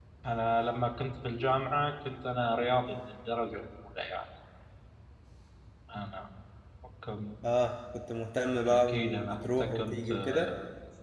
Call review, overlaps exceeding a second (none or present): present